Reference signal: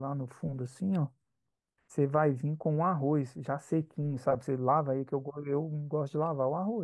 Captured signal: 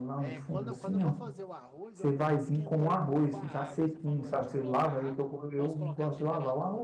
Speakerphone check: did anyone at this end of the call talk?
Yes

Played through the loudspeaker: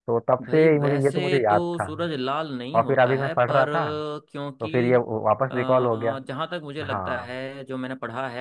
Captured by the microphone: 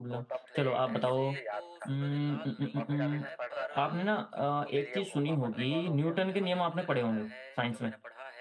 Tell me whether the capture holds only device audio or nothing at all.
No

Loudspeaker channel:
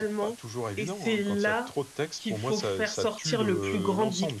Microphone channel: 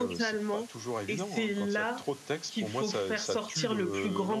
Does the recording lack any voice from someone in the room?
Yes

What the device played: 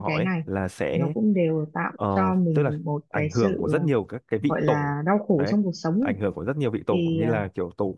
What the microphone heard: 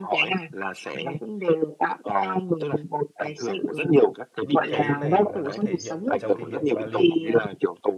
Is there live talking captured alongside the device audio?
Yes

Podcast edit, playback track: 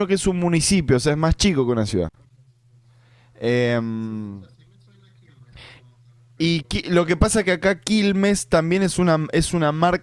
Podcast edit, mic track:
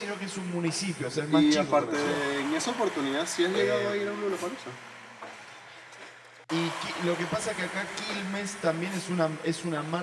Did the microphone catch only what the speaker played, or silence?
No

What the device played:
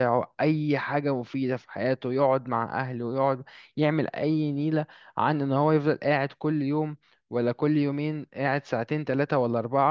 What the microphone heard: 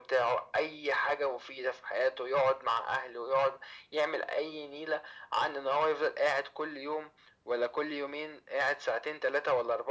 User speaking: No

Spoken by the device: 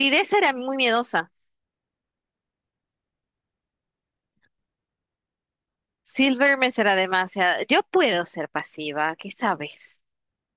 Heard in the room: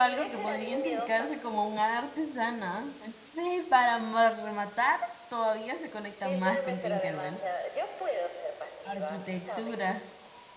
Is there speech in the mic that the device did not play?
Yes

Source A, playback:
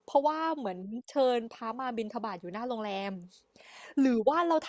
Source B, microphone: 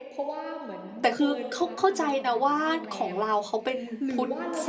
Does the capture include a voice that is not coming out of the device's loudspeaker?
Yes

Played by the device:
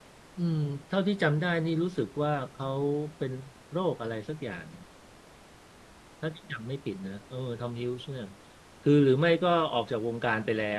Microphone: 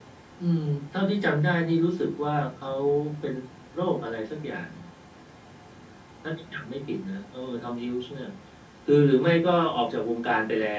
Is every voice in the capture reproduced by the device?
Yes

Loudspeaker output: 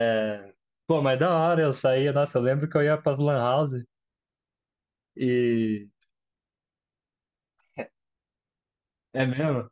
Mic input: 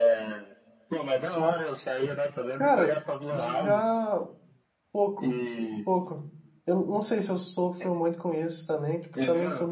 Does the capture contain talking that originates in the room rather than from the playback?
Yes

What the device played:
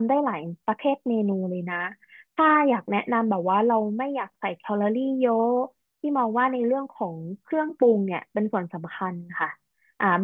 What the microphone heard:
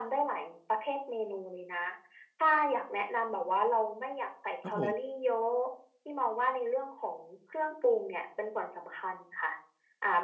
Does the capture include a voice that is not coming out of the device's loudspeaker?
Yes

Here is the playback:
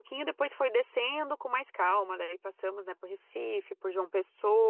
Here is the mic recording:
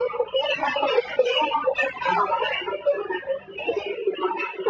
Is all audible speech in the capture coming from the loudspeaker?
Yes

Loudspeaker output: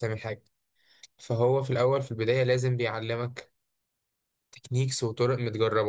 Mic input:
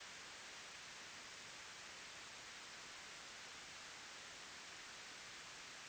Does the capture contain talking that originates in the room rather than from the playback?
No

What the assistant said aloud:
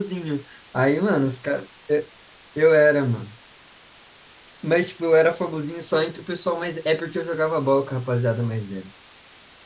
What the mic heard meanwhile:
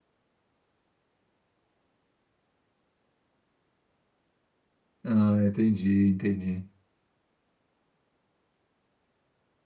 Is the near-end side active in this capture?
Yes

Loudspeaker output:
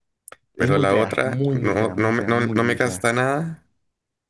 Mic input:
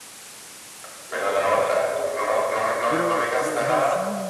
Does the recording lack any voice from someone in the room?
No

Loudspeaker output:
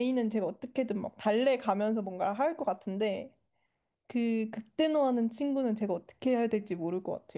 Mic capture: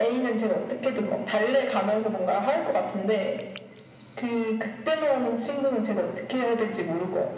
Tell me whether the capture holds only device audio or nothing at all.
Yes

